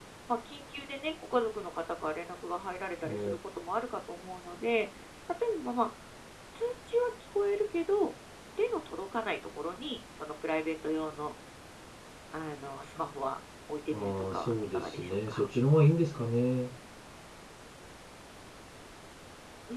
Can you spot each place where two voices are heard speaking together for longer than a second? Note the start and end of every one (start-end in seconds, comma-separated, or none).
13.9-15.4